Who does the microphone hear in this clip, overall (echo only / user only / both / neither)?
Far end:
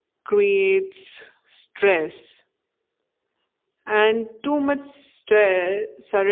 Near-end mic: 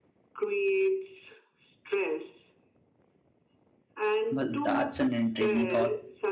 both